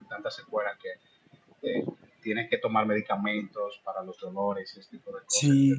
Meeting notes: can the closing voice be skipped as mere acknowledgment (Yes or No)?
No